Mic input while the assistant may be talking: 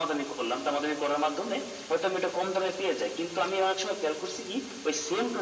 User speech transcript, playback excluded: none

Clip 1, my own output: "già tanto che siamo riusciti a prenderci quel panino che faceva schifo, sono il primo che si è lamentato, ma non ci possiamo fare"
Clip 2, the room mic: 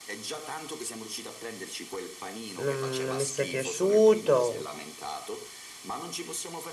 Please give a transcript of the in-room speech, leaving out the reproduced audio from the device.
Non, non mi sei piaciuto,

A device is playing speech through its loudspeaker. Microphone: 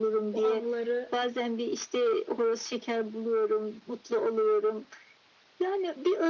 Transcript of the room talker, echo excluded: o anıları

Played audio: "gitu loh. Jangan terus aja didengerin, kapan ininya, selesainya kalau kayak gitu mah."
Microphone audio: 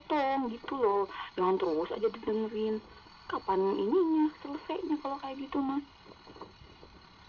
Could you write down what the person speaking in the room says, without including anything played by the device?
none

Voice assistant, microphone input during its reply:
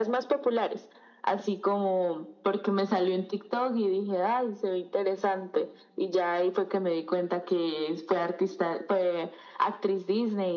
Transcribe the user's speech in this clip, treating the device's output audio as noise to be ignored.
none

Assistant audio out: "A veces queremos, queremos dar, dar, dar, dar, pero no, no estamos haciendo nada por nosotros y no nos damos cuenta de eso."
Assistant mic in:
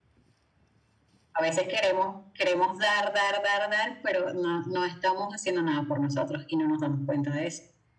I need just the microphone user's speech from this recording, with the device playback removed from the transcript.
none

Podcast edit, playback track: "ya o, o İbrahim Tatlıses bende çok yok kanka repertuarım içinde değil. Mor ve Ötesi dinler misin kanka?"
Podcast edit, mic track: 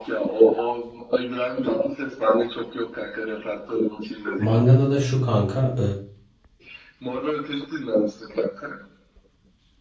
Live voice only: Mangada da şu kanka

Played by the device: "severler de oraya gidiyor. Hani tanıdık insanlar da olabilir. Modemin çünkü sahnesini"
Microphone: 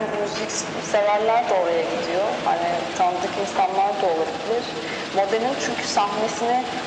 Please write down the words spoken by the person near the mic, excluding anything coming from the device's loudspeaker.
none

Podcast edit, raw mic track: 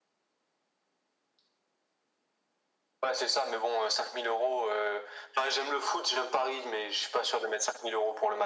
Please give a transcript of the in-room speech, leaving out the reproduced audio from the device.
none

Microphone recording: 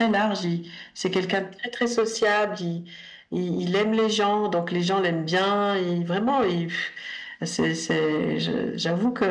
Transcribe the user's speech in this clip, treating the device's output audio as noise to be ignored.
none

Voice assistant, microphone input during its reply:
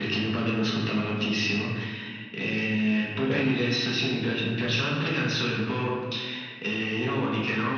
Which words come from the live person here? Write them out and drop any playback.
certo.

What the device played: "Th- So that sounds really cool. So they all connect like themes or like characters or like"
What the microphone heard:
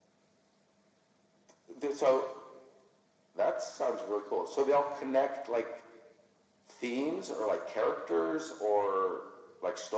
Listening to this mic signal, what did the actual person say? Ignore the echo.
none

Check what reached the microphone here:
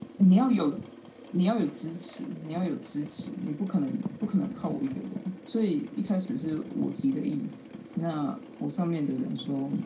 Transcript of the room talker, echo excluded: none

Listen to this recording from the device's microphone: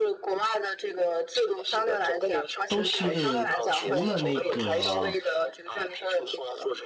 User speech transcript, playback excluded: 都是除了那个

